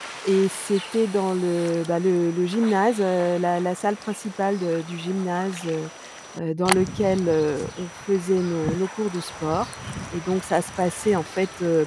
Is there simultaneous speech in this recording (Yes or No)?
No